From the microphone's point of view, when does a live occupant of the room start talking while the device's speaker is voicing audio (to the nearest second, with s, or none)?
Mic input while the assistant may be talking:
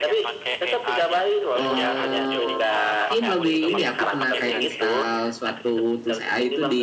2 s